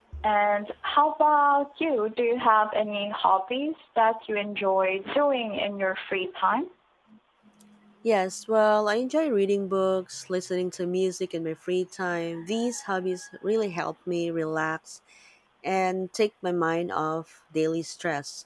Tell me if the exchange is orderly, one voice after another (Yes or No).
Yes